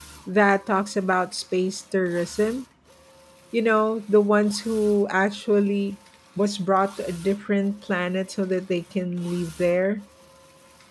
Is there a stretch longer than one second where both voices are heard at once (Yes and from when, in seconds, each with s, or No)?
No